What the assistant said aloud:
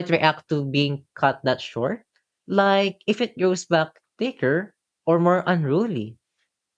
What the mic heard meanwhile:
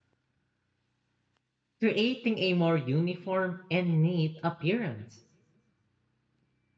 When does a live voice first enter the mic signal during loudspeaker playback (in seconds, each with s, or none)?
1.8 s